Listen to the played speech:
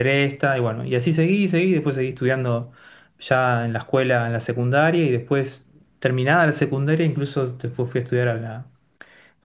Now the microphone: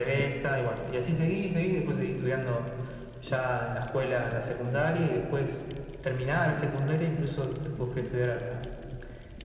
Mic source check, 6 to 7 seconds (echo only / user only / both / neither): echo only